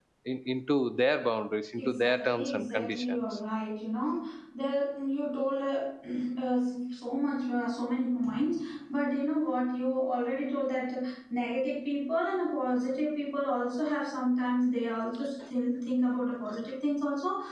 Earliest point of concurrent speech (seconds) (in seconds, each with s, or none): 1.8 s